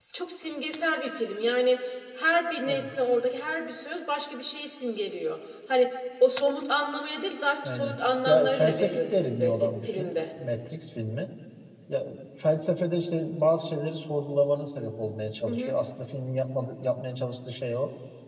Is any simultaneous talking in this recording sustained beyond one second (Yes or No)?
Yes